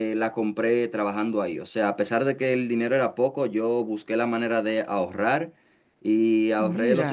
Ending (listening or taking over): listening